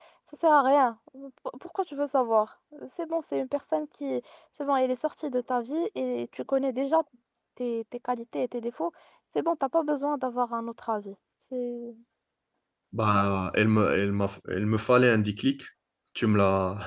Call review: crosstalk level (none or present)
none